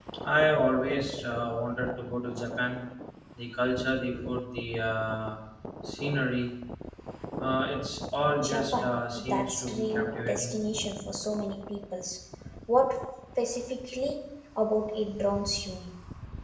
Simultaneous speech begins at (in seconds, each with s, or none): 8.4 s